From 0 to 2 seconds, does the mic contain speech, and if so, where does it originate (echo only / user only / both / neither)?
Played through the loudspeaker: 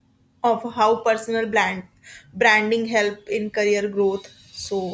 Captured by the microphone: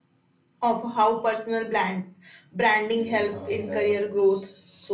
echo only